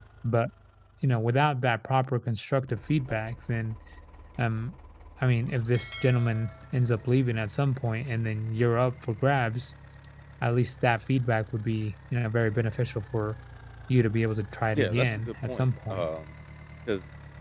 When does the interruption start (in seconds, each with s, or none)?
14.8 s